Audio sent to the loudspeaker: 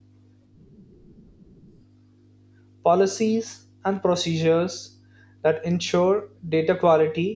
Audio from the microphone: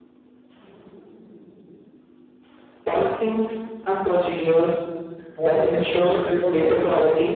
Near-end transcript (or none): What is exception reporting?